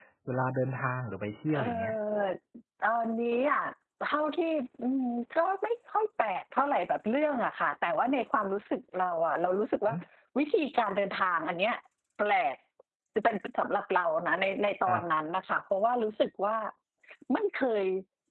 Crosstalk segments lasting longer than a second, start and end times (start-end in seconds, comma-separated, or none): none